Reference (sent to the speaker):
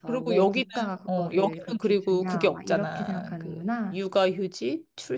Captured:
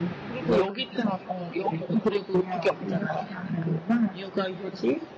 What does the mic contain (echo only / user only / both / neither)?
echo only